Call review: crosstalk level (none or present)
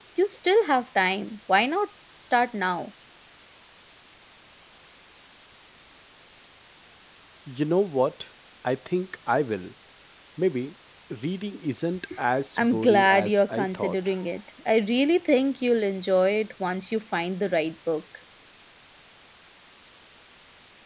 present